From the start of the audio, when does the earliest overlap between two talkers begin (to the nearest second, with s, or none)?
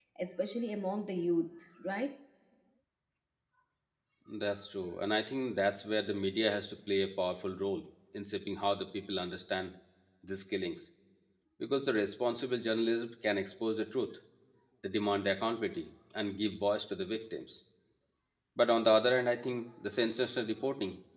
none